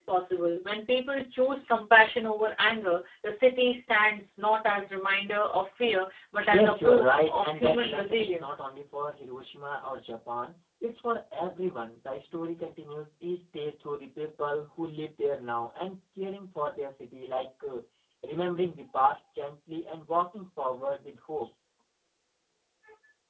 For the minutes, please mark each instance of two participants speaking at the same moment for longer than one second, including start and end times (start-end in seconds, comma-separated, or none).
6.5-8.6